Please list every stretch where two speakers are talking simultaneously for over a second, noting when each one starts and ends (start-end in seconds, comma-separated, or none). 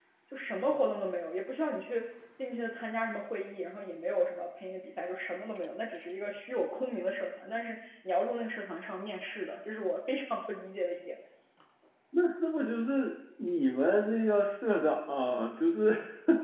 none